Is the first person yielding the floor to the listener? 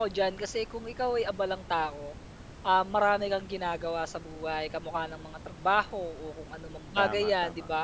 No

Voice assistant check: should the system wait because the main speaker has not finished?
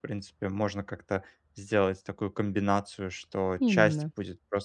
Yes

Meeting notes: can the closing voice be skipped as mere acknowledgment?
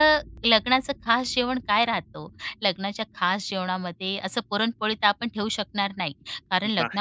Yes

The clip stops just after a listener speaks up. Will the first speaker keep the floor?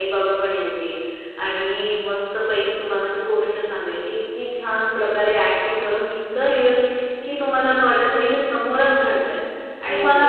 Yes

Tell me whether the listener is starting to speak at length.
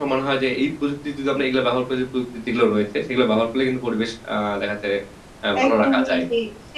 Yes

